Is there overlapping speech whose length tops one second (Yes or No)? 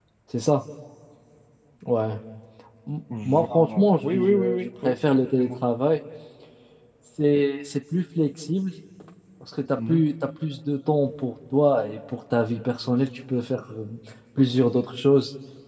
Yes